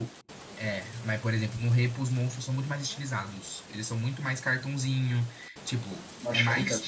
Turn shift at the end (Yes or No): No